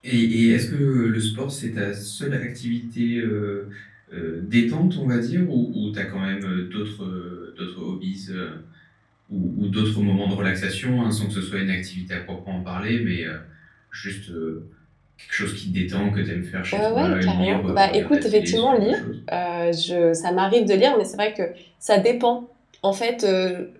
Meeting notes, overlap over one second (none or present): present